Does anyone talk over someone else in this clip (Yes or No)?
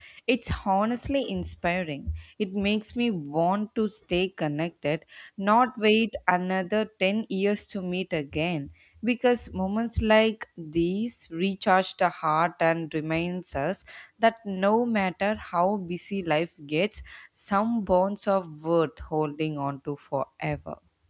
No